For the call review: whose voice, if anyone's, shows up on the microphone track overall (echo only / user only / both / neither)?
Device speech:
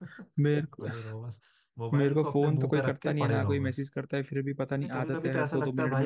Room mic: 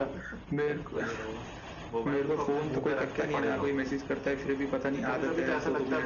echo only